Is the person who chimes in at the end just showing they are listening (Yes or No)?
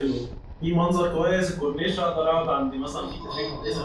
No